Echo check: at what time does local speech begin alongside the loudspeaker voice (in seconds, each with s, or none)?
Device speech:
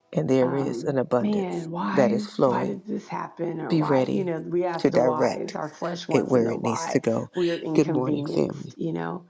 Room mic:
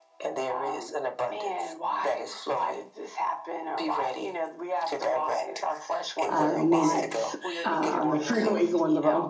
6.3 s